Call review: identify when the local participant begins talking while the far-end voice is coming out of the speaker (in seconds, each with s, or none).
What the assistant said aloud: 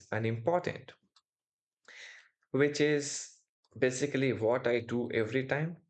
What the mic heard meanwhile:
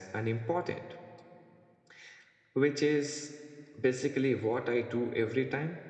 none